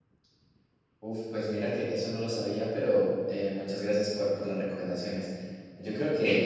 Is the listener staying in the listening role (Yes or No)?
No